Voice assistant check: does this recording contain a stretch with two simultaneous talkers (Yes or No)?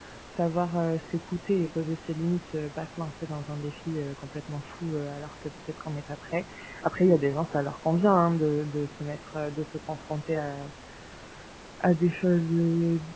No